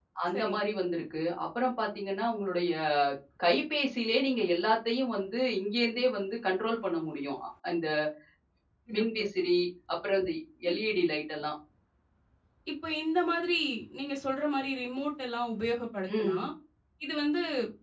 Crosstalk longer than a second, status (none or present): none